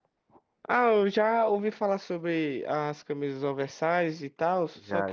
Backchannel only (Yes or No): No